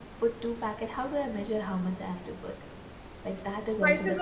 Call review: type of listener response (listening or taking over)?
taking over